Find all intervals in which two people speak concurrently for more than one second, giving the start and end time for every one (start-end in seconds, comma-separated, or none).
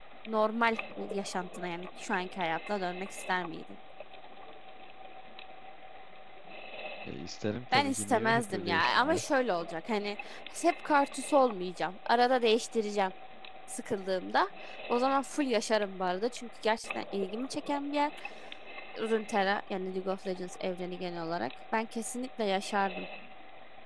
7.7-9.2